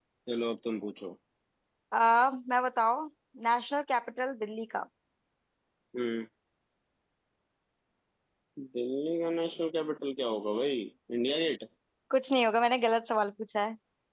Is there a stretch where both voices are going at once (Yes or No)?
No